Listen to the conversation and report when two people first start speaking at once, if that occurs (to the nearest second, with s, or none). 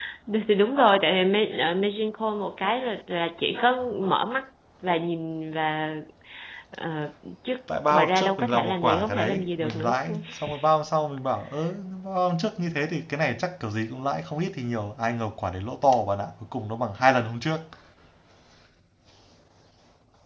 8 s